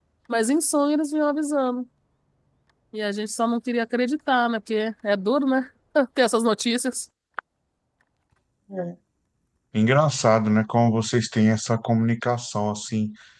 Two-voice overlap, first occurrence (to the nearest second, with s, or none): none